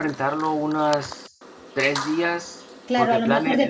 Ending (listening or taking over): taking over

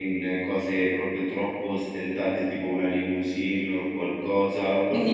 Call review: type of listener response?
taking over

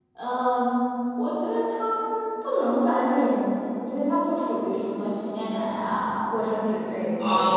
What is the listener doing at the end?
taking over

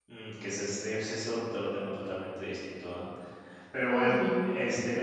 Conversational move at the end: listening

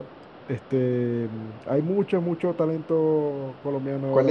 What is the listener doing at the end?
taking over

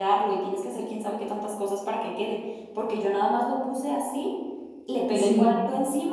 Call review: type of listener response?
listening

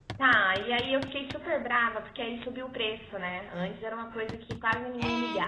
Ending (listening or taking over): taking over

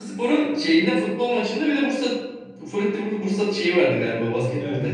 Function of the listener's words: taking over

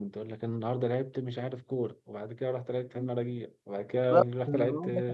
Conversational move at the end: taking over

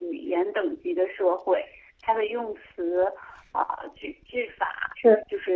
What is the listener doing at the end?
listening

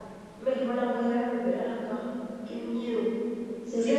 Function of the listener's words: taking over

